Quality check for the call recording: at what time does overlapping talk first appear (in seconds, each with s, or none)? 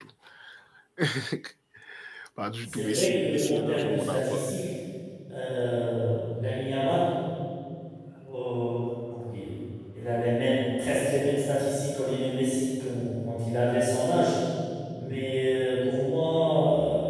2.6 s